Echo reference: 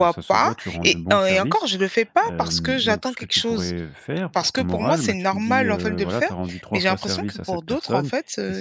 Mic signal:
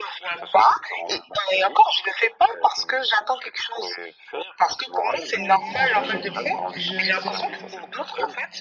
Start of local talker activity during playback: 5.3 s

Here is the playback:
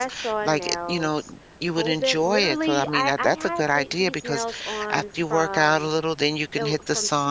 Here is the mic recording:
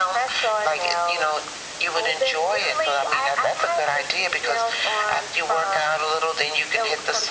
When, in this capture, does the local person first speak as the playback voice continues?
none

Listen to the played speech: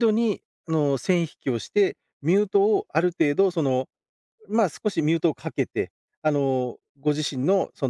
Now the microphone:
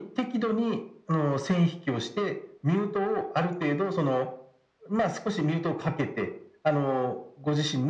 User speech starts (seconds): none

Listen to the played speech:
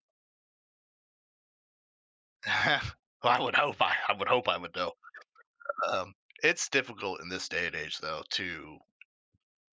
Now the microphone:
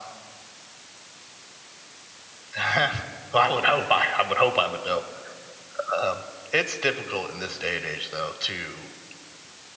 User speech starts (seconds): none

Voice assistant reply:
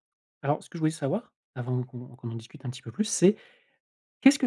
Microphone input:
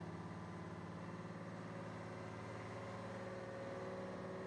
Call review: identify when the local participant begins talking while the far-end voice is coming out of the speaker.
none

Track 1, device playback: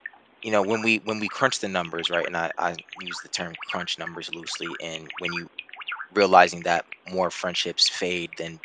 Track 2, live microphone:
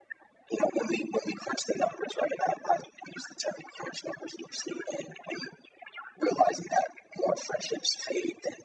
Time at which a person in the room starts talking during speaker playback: none

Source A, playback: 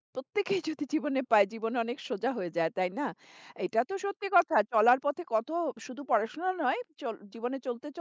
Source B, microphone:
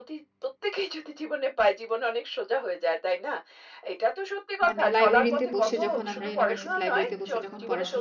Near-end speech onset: 4.7 s

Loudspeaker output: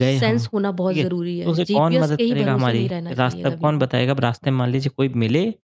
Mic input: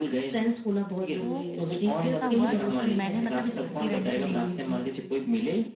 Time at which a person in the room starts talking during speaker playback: 1.1 s

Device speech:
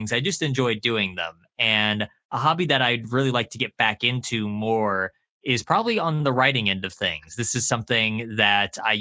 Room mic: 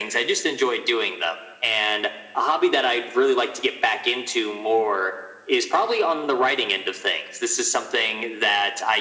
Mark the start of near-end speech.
none

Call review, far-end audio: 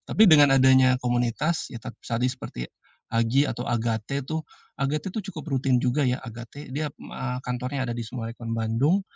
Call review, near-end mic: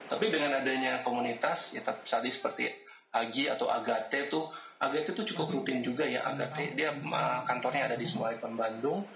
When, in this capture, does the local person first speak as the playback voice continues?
5.3 s

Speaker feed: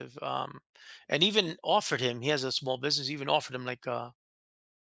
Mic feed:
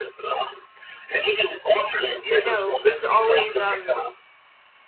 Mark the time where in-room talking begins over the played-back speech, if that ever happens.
2.3 s

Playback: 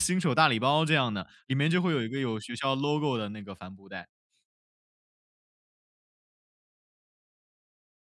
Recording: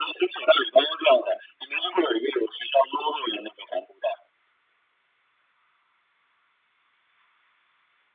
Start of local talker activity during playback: none

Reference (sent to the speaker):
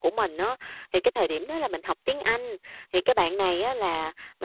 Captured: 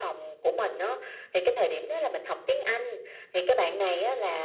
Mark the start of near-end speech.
none

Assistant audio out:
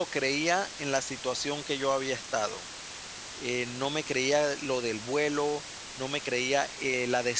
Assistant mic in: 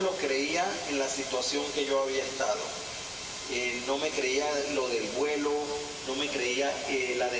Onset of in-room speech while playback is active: none

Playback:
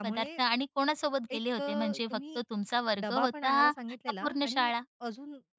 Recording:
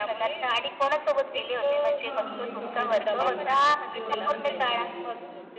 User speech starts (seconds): 2.0 s

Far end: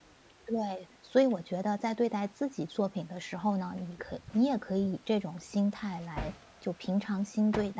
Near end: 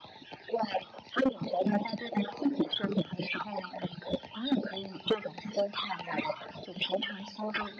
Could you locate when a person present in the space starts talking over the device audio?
none

